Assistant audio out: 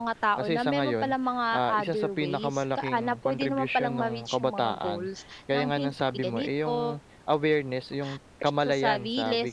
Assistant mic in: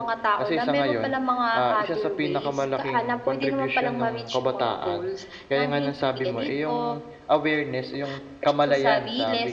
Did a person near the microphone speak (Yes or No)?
No